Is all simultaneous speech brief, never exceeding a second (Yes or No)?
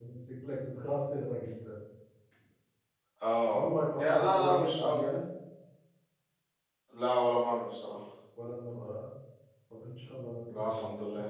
No